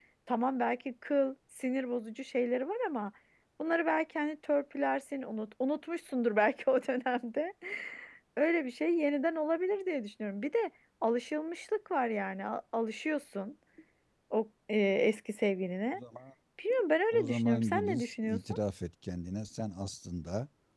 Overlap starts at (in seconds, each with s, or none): 17.1 s